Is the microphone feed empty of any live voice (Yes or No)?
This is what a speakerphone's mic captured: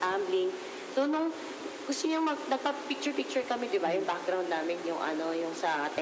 No